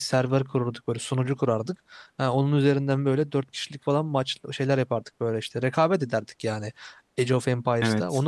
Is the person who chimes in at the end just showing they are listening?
Yes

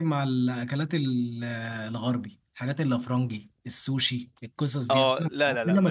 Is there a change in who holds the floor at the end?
Yes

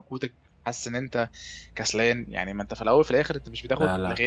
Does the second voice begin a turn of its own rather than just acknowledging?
No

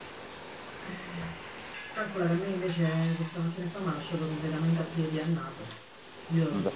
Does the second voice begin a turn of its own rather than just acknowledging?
No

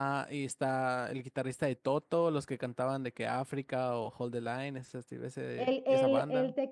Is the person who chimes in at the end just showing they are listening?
No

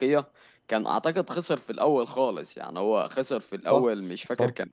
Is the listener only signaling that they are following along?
Yes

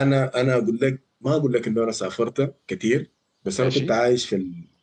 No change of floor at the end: Yes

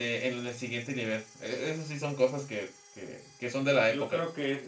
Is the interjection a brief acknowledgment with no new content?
No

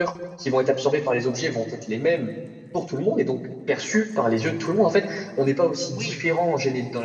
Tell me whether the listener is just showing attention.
Yes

